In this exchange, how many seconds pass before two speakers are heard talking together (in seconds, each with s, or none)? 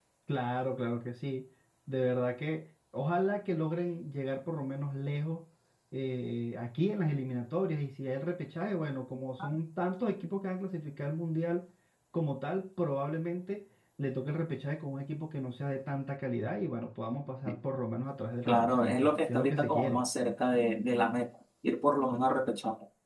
18.4 s